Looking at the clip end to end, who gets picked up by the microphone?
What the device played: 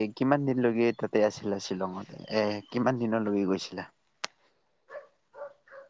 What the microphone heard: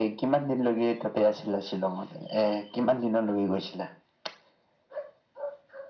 echo only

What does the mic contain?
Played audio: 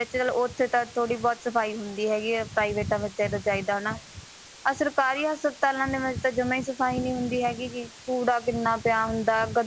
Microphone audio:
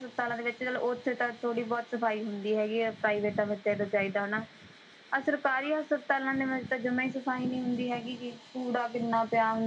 echo only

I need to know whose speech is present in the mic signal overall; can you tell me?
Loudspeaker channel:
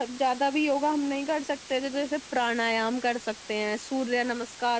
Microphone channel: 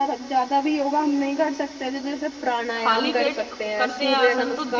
both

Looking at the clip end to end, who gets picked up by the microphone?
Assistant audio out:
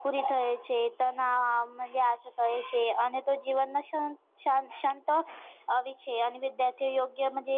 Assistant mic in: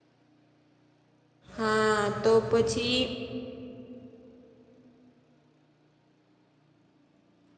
user only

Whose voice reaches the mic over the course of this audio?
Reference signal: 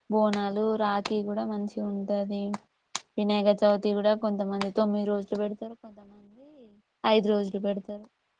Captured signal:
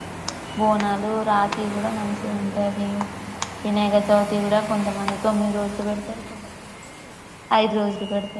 echo only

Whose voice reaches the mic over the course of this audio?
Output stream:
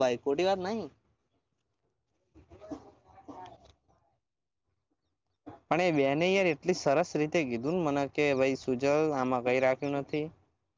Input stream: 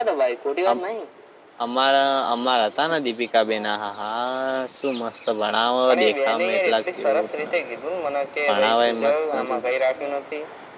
both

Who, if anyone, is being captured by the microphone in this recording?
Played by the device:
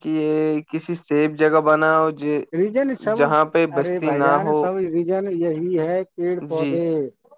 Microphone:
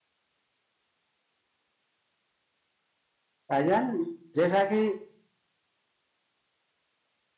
user only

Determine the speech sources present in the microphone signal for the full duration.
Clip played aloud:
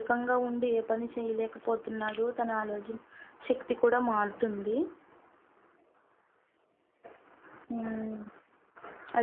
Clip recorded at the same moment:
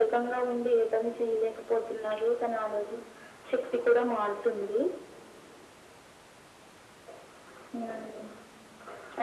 echo only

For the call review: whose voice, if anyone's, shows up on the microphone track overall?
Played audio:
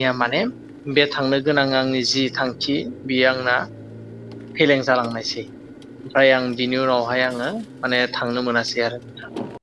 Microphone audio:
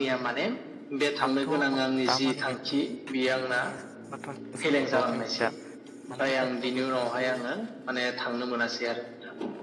both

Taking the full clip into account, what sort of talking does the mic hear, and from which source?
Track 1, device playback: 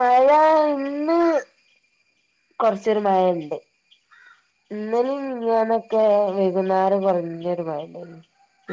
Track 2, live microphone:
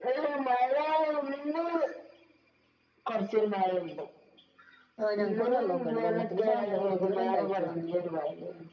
both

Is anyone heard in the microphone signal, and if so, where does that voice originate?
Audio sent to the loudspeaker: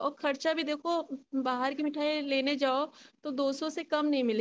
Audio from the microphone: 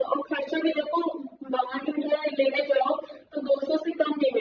echo only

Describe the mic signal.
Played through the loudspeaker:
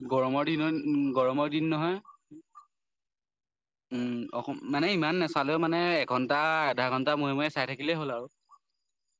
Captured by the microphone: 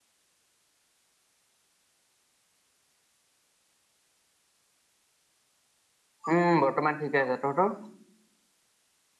user only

